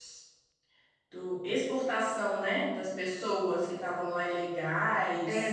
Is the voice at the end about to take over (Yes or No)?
Yes